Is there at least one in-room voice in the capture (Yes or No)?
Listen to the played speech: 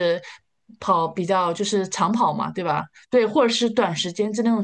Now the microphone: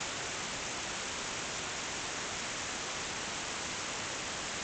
No